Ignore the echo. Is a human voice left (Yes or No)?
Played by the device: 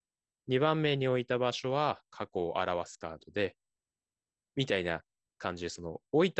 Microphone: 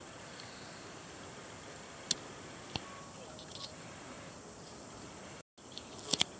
No